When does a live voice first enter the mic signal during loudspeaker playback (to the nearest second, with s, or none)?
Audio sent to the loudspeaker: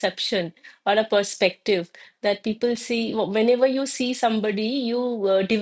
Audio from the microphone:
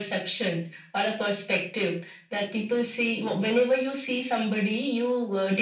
none